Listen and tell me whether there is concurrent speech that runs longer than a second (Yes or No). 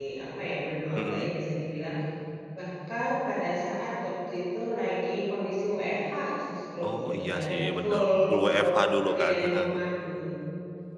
Yes